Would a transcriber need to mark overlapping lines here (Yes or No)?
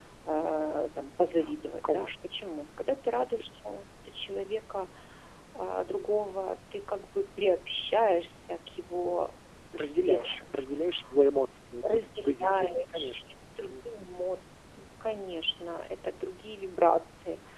Yes